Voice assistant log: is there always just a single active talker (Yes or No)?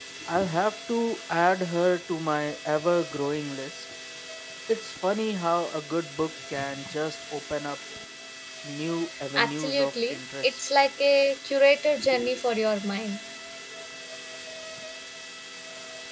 No